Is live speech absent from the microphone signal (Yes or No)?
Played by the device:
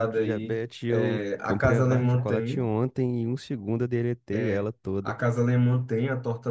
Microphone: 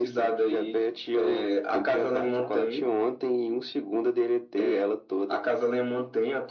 Yes